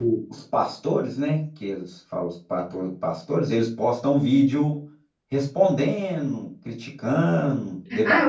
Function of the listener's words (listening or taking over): taking over